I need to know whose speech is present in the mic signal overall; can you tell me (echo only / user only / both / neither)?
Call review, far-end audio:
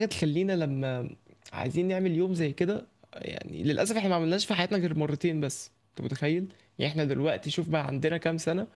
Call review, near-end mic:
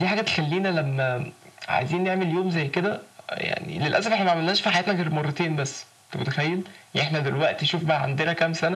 echo only